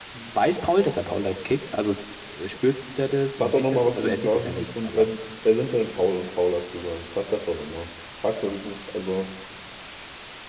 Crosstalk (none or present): present